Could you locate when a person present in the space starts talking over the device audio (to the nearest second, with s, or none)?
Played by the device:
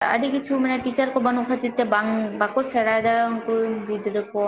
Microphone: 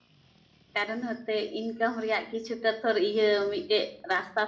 1 s